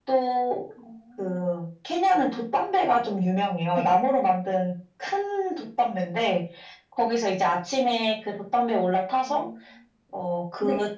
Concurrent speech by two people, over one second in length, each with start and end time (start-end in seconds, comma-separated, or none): none